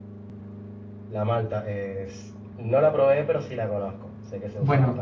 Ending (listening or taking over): taking over